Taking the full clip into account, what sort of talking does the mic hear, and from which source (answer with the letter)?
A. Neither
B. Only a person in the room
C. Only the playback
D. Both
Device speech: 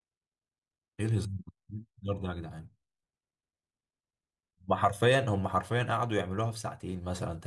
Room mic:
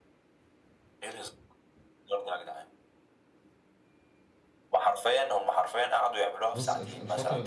D